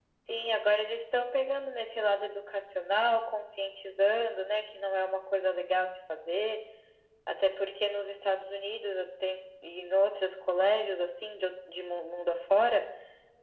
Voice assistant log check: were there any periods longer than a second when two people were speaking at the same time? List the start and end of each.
none

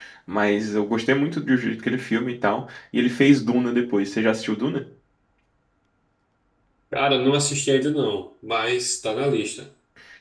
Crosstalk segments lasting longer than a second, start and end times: none

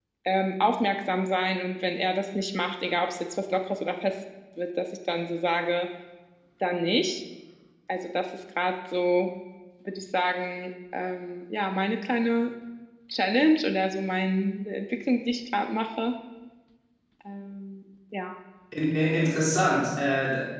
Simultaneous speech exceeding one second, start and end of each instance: none

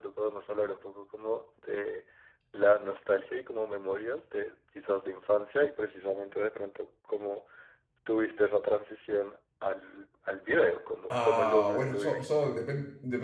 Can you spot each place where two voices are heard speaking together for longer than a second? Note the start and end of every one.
11.1-12.6

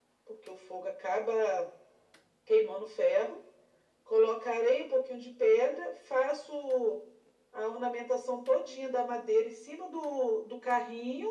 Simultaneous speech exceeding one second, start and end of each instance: none

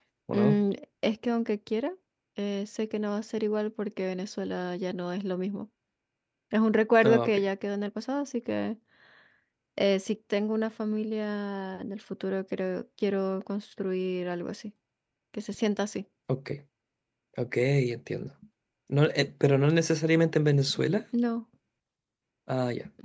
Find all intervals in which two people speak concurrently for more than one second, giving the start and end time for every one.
none

